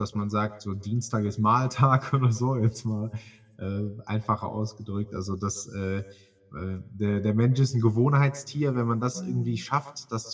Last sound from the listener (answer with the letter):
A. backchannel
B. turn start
A